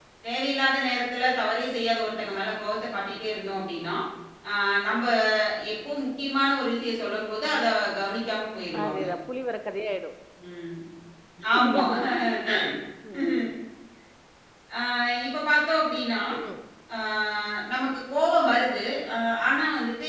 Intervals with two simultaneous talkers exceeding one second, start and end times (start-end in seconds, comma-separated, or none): none